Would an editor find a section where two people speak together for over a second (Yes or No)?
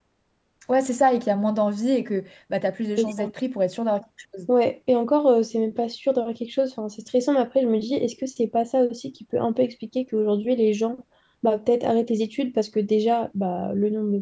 No